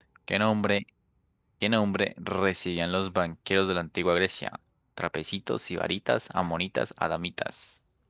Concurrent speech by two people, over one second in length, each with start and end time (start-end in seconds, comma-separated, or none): none